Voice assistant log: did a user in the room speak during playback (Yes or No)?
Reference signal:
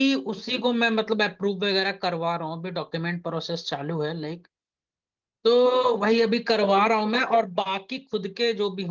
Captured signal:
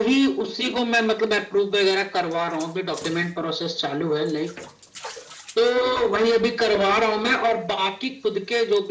No